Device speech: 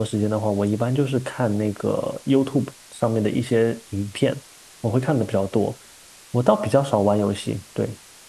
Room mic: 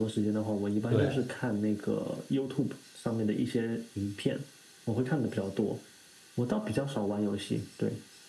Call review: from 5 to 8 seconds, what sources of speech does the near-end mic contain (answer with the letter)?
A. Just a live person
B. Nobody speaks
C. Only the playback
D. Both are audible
C